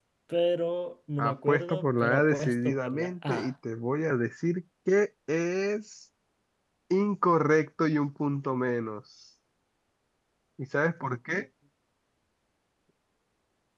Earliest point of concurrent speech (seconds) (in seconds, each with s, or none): 1.2 s